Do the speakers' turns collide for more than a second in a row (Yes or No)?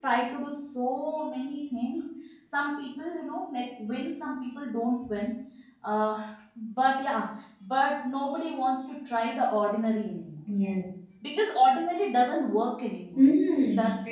No